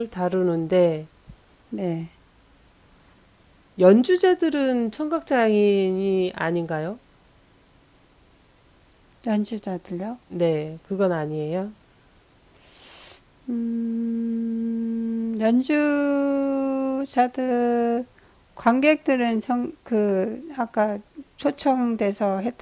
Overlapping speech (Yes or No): No